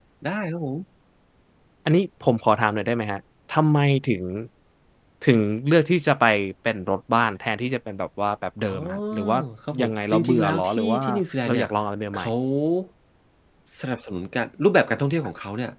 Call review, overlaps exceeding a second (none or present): present